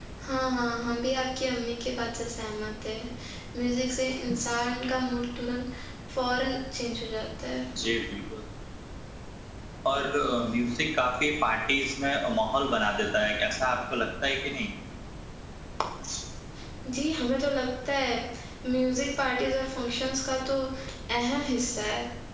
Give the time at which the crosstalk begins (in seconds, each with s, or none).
none